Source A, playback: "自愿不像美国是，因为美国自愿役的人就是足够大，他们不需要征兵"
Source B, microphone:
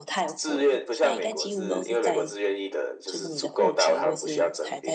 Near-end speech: present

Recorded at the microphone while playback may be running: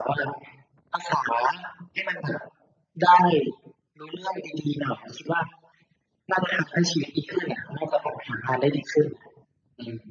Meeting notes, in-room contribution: none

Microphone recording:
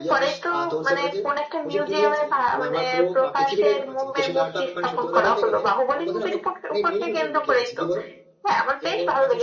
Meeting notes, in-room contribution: present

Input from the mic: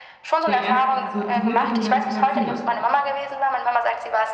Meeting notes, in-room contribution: present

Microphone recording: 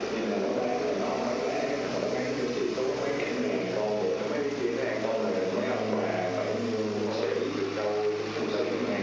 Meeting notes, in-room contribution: none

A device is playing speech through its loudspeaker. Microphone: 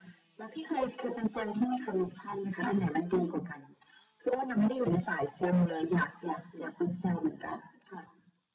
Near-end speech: none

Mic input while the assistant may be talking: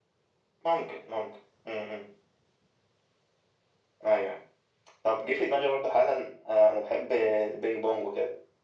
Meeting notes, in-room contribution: none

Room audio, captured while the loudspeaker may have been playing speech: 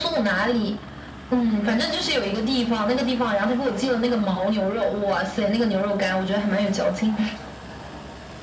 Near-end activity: none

